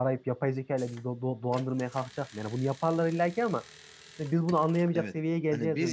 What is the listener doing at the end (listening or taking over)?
taking over